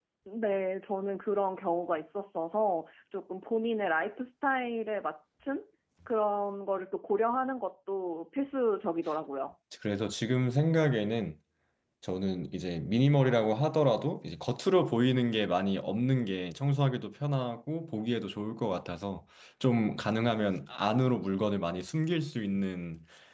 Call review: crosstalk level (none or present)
none